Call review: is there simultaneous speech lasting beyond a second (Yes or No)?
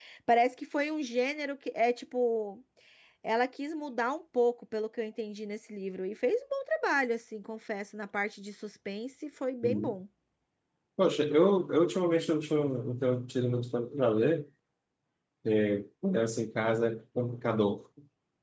No